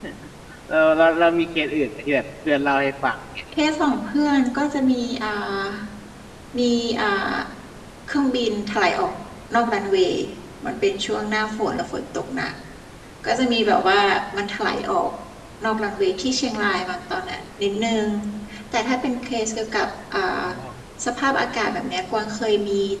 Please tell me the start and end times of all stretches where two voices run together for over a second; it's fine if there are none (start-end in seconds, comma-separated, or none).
none